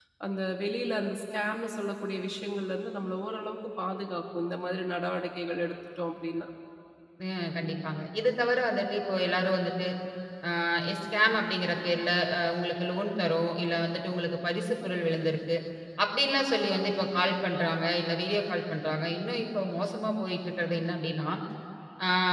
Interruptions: none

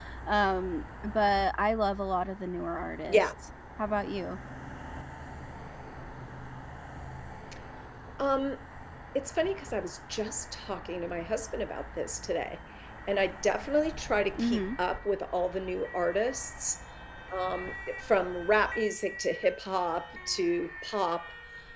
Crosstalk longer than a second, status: none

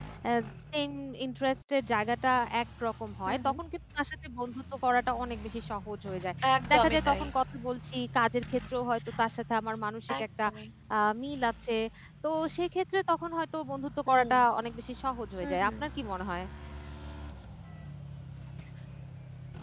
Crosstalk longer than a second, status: none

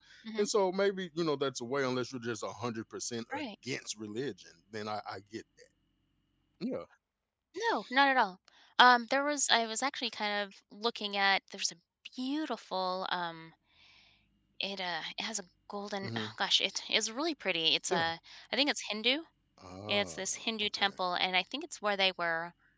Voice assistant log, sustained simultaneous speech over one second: none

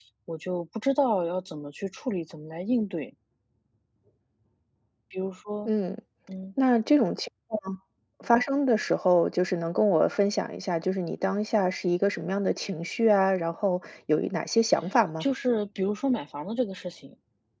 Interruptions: none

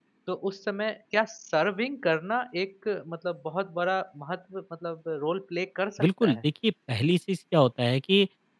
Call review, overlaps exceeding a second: none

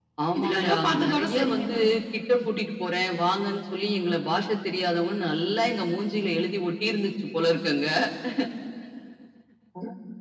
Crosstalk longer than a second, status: present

